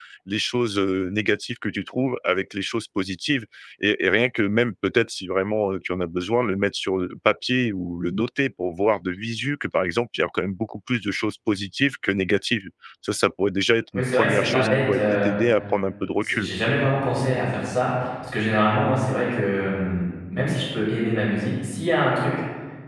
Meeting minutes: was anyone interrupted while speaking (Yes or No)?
Yes